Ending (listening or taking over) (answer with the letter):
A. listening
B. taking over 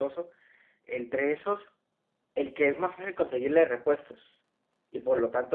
A